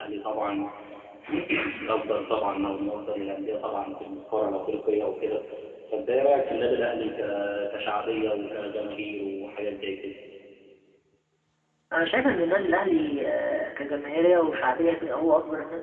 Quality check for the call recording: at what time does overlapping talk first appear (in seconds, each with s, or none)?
none